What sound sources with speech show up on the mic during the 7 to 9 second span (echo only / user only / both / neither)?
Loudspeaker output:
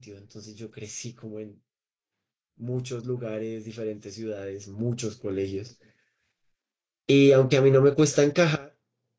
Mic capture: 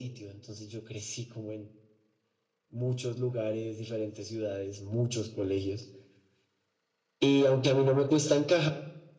echo only